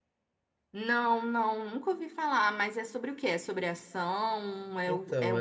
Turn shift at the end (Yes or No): Yes